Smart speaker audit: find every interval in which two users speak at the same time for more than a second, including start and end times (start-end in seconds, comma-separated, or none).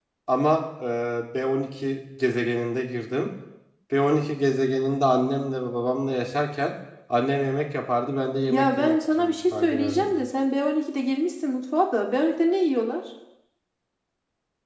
8.5-10.1